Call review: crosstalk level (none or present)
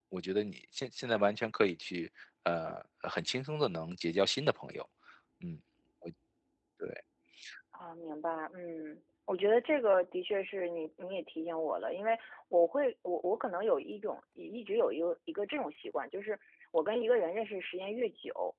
none